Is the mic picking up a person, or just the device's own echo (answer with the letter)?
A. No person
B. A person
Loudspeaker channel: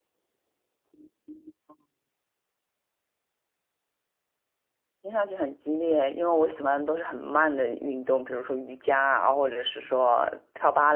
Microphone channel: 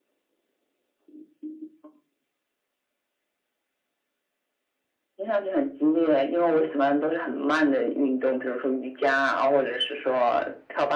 A